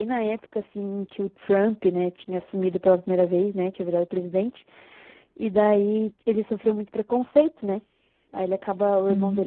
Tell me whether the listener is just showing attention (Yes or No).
Yes